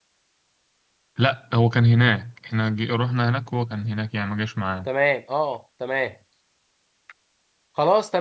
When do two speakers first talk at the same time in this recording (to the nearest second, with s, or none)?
none